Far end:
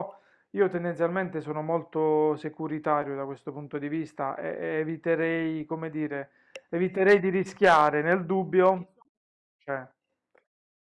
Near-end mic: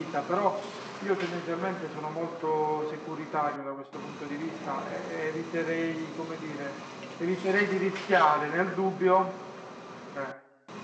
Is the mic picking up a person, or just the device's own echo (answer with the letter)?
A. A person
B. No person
B